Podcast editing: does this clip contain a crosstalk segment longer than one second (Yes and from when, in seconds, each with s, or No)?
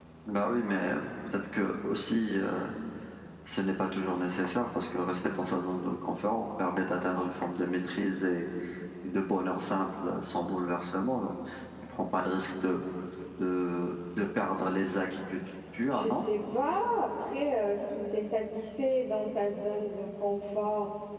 No